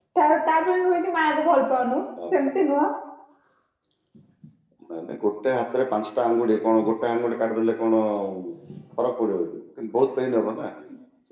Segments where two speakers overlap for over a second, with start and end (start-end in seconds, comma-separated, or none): none